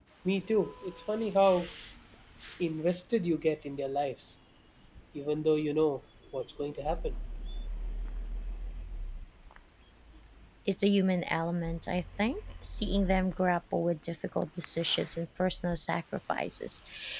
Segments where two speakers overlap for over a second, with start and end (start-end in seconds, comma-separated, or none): none